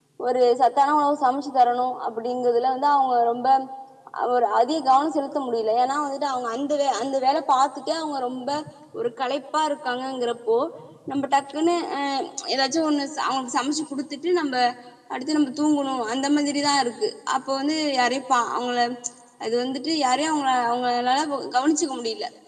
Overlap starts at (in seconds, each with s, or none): none